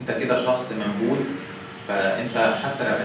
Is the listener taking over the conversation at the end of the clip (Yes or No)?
No